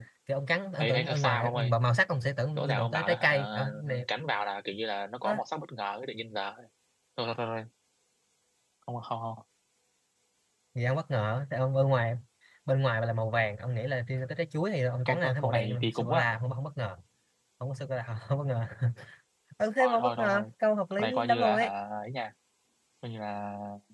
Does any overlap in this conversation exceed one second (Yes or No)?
Yes